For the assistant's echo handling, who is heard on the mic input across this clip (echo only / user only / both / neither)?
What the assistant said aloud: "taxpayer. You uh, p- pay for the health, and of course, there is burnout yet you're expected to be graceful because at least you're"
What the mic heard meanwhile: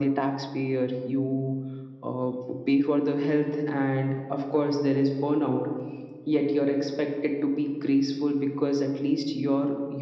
echo only